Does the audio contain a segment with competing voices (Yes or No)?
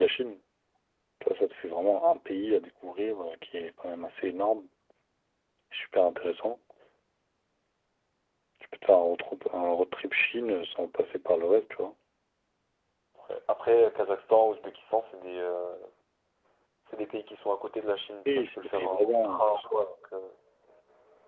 Yes